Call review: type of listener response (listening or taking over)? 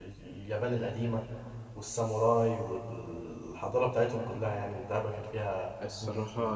taking over